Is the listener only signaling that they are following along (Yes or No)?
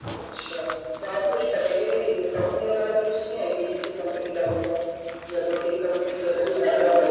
No